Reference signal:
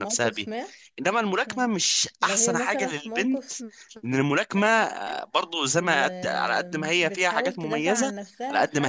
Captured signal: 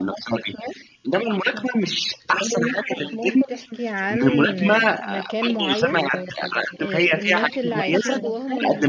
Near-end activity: present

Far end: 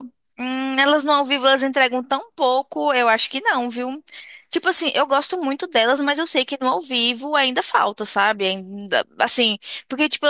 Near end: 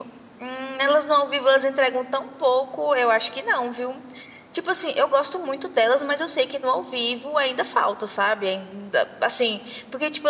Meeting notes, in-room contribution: none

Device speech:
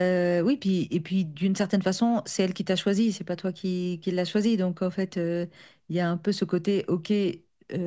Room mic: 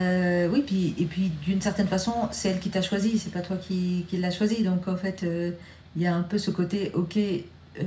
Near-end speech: none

